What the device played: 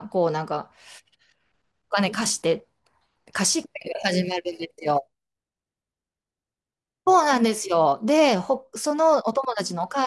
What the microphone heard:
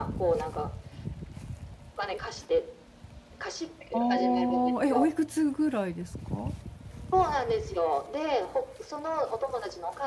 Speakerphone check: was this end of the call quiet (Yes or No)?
No